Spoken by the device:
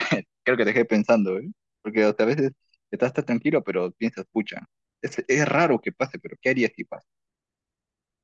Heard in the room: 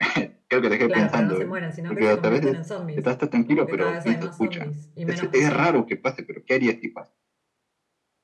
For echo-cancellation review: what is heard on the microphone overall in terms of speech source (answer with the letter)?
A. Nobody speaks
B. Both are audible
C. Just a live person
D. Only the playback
B